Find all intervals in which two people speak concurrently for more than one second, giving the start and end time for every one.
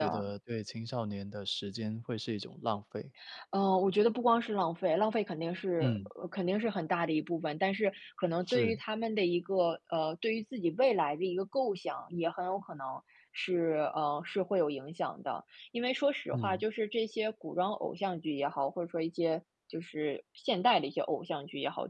none

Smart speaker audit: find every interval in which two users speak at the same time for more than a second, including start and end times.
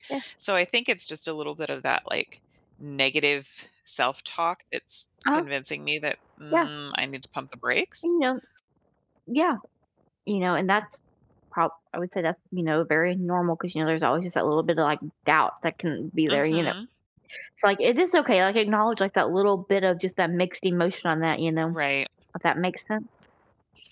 none

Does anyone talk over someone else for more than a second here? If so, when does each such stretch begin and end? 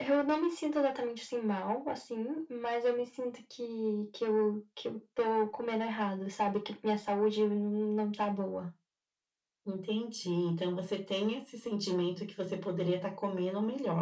none

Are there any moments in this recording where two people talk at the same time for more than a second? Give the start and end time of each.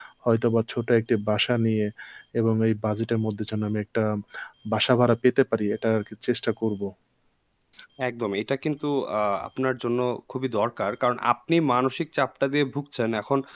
none

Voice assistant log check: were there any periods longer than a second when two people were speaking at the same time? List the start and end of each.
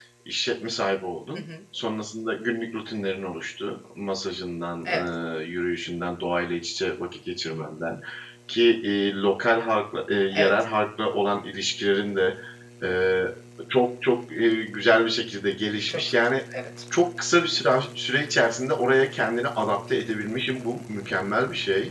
none

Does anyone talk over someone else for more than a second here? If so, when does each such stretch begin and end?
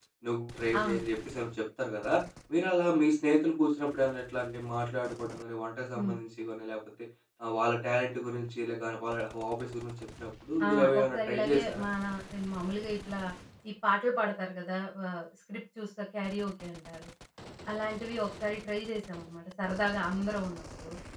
10.6-11.8

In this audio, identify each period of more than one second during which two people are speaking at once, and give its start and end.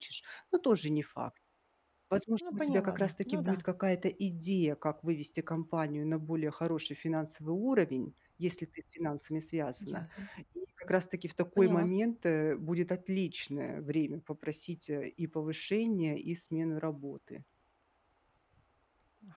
2.4-3.6

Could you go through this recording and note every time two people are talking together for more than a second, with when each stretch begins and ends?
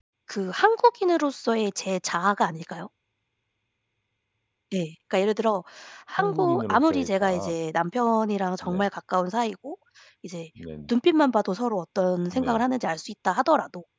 6.1-7.5

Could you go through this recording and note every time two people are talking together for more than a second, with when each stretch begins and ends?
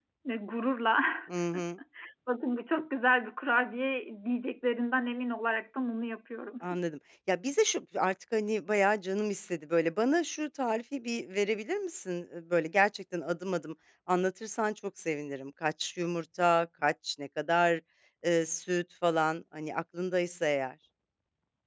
none

